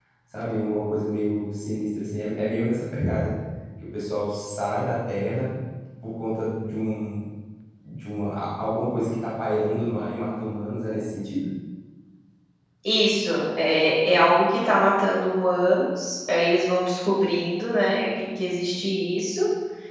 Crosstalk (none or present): none